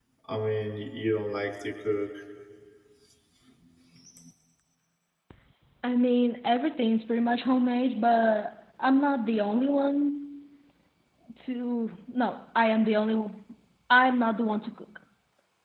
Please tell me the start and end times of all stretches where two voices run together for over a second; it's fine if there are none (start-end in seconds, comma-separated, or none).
none